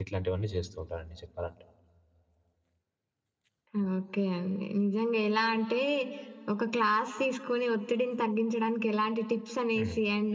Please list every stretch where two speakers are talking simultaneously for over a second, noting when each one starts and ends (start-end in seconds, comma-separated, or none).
none